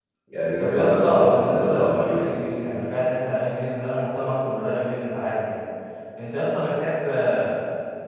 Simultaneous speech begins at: 0.6 s

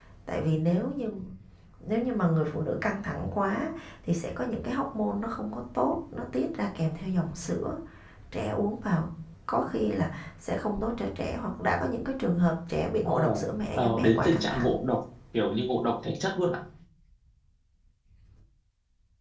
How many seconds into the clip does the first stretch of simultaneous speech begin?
13.1 s

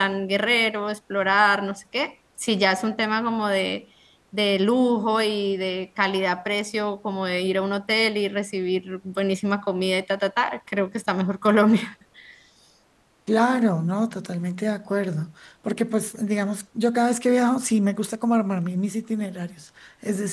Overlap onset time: none

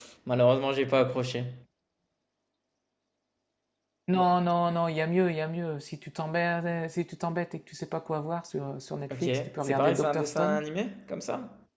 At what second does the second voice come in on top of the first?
9.1 s

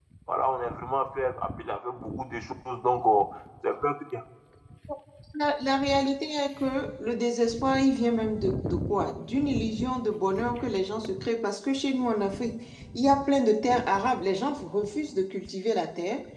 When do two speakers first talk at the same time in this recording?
none

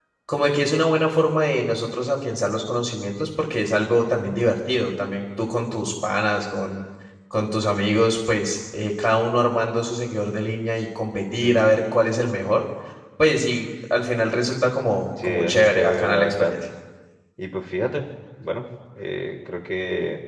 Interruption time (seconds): 15.2 s

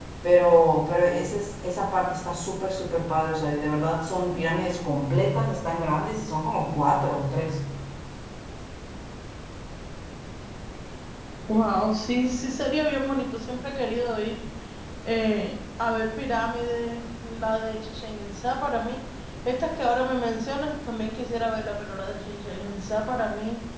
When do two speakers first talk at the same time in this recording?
none

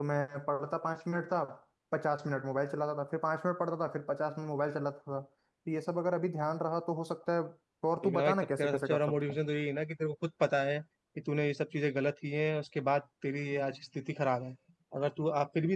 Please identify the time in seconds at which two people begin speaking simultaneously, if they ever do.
8.0 s

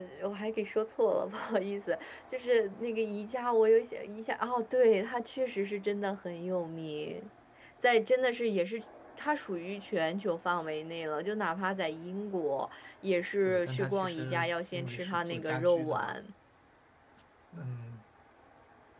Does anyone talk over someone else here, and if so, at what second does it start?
13.4 s

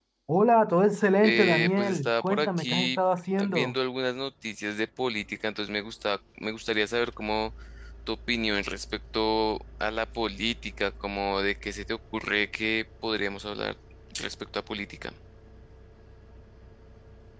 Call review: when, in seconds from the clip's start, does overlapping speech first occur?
1.2 s

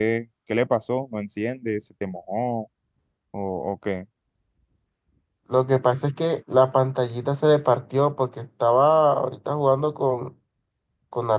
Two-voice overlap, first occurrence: none

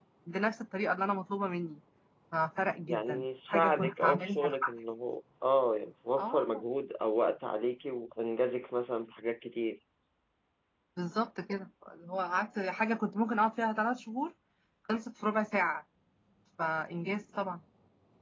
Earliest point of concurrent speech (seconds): 2.9 s

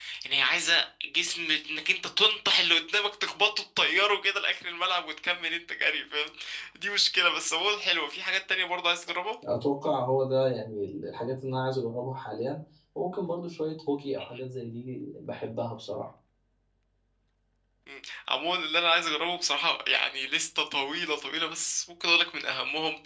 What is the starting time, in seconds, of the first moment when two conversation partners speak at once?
none

